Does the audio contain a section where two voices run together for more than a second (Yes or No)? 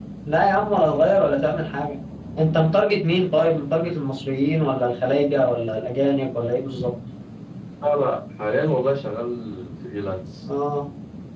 No